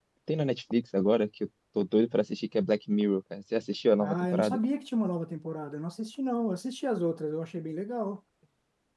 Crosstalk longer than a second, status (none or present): none